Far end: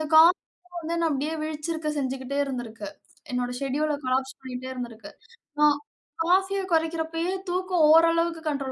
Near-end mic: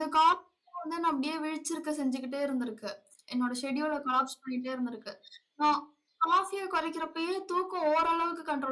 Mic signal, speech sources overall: echo only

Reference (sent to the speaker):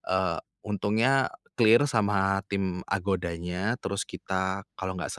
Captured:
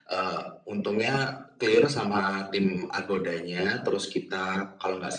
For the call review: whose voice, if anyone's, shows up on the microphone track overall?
echo only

